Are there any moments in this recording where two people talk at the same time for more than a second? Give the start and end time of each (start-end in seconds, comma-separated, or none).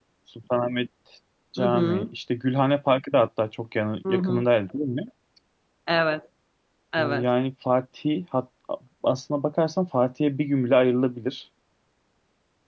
none